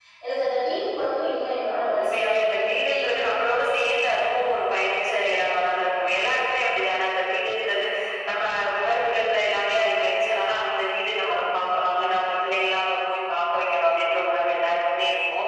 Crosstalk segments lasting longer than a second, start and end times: 1.6-3.1

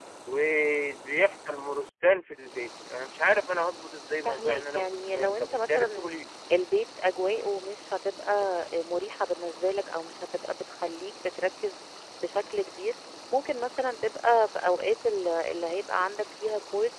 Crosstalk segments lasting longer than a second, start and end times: 4.2-6.1

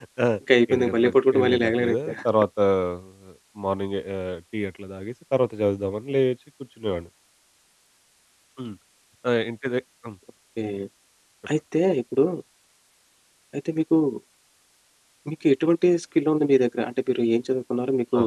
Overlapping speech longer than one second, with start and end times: 0.7-2.1

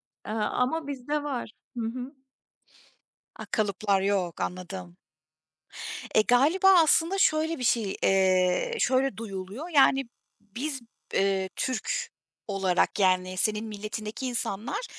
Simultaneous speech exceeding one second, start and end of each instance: none

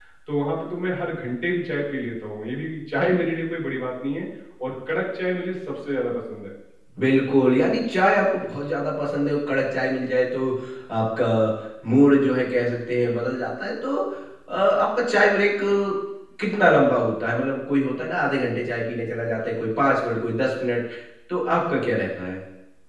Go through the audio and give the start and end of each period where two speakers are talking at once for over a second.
none

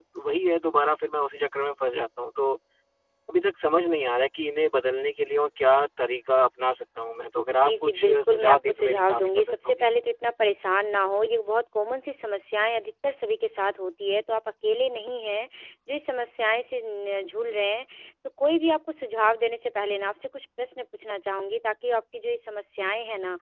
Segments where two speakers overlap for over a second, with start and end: 7.5-9.9

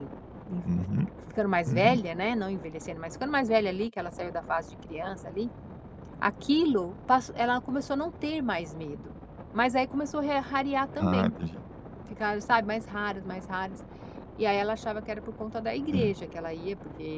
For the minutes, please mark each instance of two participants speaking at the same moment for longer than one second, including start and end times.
none

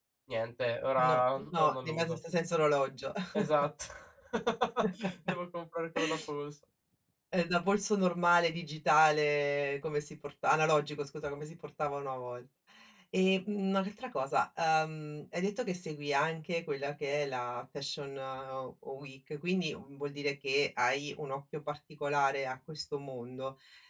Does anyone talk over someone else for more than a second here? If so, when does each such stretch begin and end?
1.0-2.2

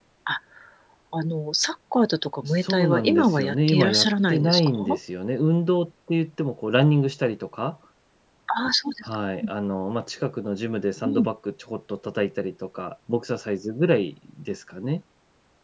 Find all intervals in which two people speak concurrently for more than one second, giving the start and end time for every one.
2.4-4.7

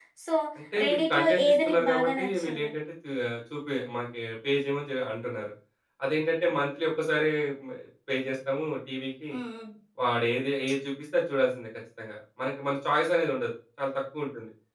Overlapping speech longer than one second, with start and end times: 0.8-2.7

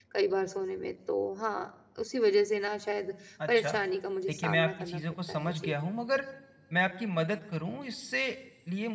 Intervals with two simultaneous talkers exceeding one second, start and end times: 4.3-5.7

